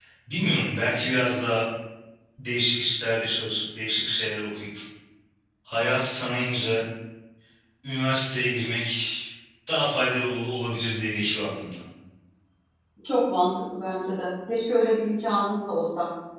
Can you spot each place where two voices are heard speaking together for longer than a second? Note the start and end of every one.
none

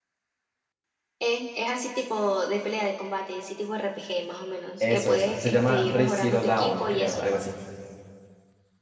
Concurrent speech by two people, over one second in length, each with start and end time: 4.8-7.2

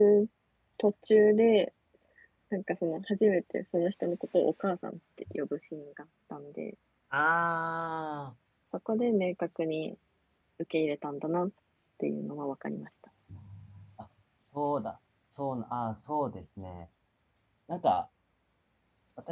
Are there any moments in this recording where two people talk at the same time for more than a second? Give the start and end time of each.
none

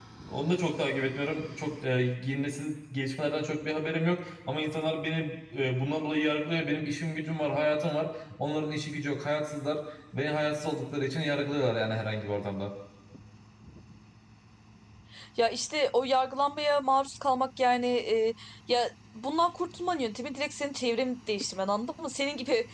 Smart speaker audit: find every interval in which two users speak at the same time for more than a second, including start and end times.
none

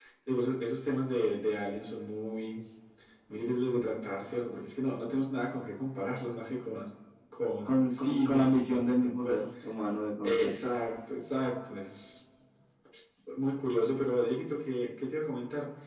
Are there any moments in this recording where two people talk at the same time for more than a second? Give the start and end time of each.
7.6-9.4

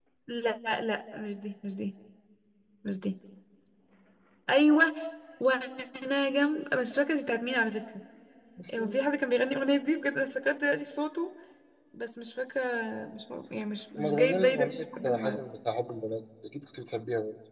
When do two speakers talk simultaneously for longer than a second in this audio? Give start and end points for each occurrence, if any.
14.0-15.4

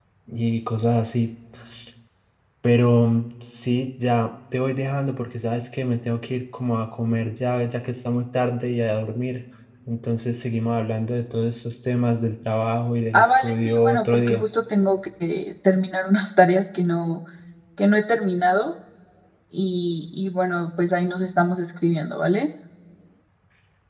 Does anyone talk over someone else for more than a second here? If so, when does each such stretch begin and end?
13.1-14.4

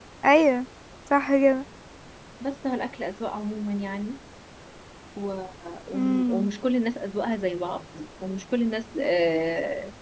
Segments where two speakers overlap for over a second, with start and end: none

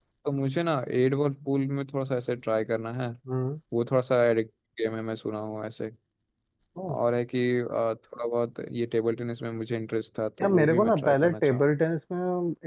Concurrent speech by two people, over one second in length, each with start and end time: 10.4-11.6

